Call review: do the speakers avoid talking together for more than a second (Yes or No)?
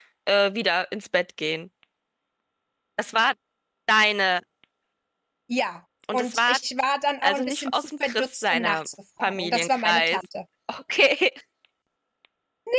No